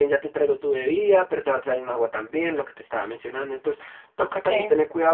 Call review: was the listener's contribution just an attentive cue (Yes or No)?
Yes